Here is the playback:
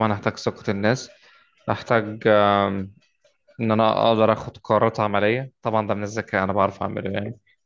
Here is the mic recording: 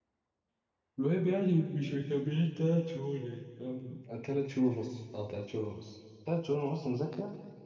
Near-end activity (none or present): present